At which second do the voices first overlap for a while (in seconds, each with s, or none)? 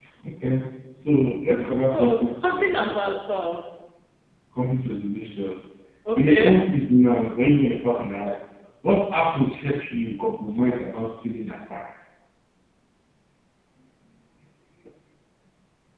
1.9 s